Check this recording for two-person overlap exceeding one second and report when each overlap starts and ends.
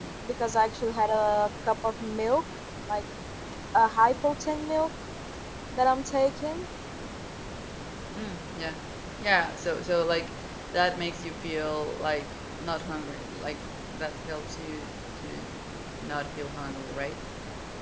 none

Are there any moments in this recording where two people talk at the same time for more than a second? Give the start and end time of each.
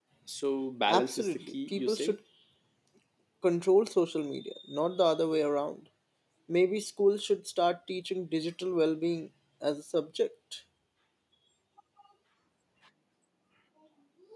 0.9-2.2

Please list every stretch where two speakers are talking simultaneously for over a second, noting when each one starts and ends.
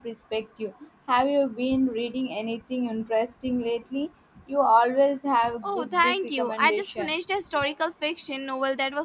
5.6-7.1

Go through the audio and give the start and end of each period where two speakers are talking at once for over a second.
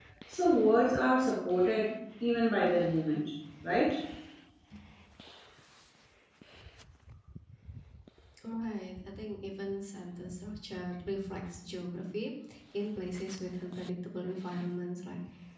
none

